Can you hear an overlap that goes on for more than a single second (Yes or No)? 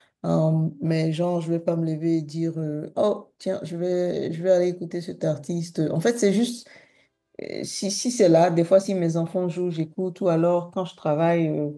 No